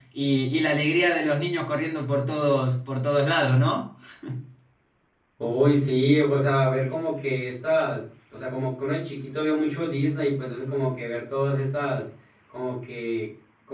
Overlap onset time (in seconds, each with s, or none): none